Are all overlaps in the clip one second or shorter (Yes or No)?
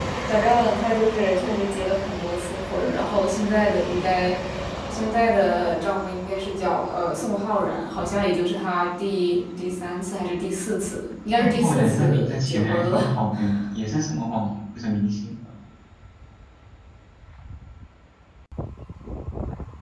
No